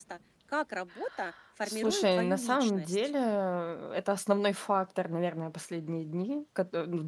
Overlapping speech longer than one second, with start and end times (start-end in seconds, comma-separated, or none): 1.6-3.0